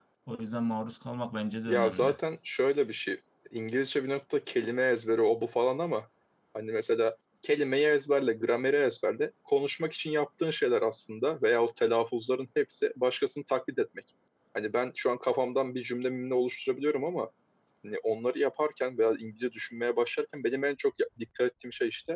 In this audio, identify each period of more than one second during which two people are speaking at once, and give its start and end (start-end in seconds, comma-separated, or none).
none